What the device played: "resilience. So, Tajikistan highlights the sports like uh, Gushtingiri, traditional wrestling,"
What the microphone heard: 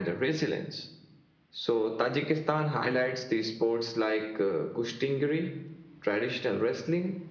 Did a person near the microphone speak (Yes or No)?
No